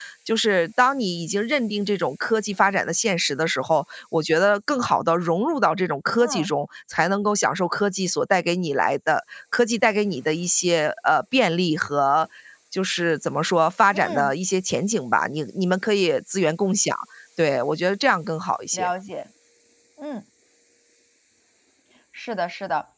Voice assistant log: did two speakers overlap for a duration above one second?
No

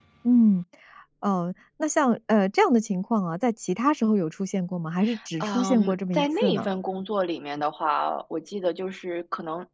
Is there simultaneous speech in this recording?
Yes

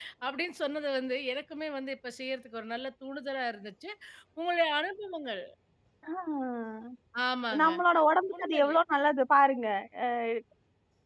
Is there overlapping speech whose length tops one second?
No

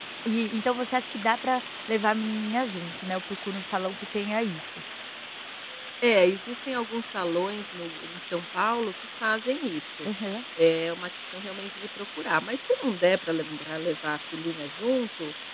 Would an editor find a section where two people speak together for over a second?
No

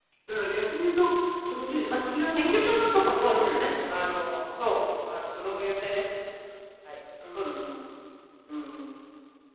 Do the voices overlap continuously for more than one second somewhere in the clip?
Yes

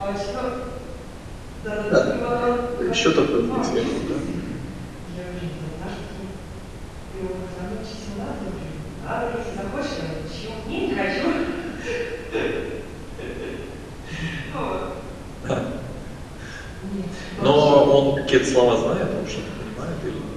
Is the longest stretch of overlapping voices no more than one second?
No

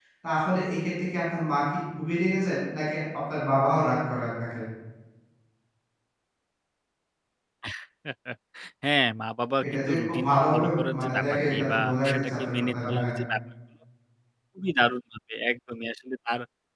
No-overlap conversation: No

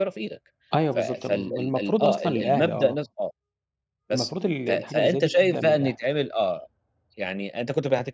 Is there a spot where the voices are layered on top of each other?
Yes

